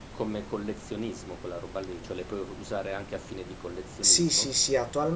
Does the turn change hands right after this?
Yes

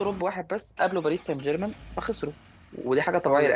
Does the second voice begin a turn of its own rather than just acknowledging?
No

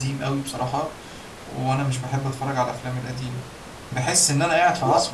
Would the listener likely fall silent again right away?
Yes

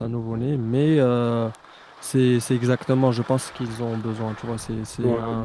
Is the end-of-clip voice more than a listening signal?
No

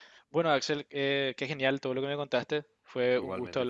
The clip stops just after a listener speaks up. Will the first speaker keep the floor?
Yes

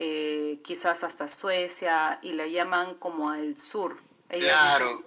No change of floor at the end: No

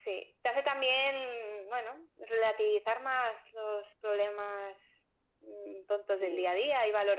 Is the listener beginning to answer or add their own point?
No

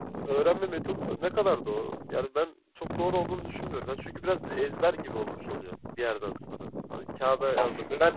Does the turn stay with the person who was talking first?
Yes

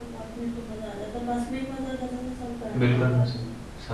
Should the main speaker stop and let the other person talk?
Yes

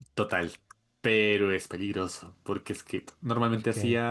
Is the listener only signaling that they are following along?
Yes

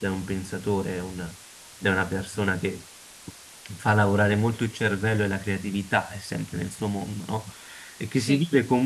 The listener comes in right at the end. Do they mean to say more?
No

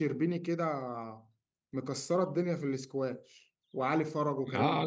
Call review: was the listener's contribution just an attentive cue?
No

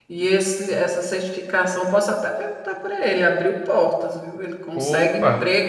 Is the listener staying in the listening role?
Yes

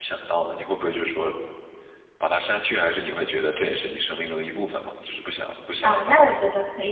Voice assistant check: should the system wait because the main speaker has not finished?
No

